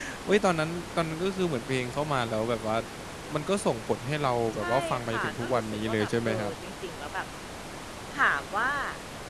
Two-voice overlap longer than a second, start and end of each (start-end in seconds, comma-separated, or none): 4.5-6.5